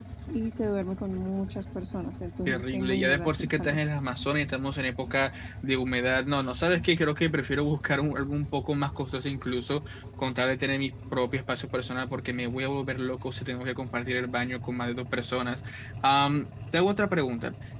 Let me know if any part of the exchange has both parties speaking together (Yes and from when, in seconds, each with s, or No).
Yes, from 2.5 s